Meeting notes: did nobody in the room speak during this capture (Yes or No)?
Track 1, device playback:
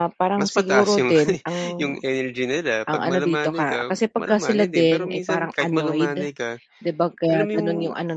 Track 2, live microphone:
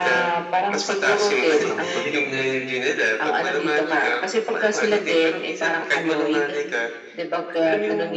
No